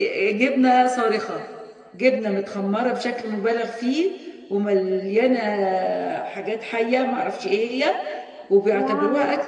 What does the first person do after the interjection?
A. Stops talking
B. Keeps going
B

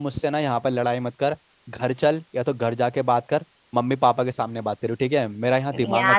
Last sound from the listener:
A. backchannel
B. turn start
B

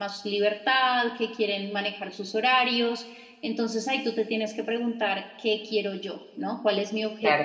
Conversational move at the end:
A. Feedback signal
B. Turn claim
B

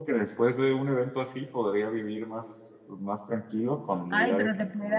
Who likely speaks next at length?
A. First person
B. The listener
B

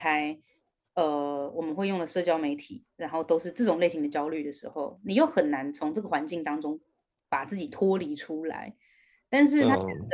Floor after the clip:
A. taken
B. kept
B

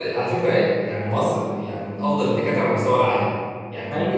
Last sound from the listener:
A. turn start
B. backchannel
B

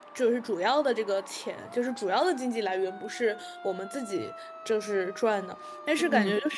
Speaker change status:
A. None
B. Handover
A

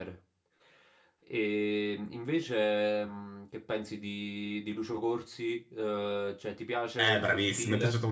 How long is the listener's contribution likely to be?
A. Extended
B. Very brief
A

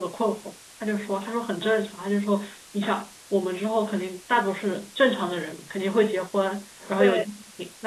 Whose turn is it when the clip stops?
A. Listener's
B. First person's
B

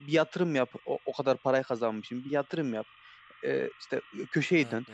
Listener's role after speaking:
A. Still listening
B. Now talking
A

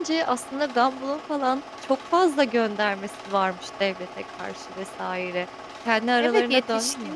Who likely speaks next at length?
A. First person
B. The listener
B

